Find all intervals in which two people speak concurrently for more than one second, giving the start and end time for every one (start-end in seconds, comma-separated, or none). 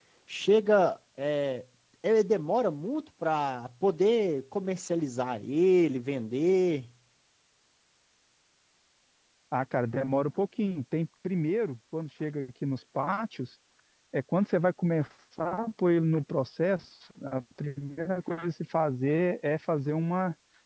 none